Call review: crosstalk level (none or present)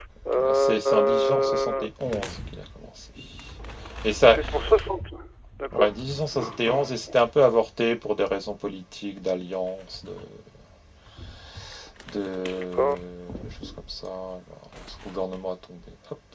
present